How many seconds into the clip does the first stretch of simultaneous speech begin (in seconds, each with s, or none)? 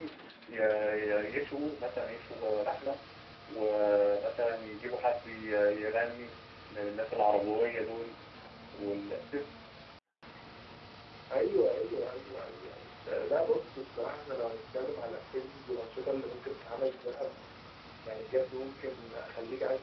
none